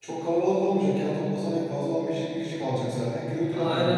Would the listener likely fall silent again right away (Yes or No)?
No